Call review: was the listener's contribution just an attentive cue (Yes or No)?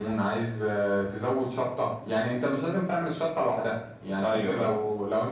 Yes